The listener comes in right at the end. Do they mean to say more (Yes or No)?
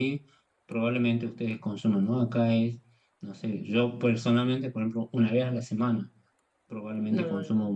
No